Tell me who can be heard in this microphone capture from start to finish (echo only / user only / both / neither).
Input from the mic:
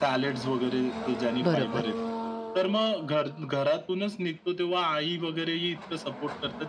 both